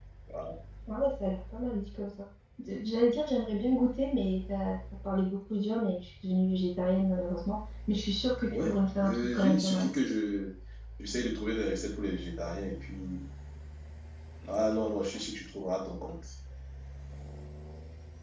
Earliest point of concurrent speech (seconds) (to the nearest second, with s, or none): 9 s